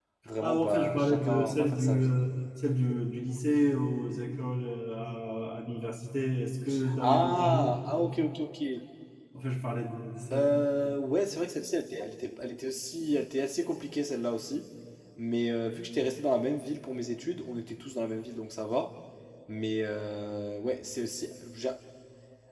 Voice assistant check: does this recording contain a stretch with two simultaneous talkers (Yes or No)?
Yes